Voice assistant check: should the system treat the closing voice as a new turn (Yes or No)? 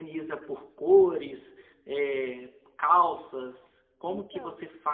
No